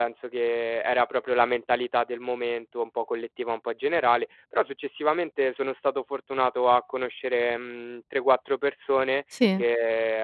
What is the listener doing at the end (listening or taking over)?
listening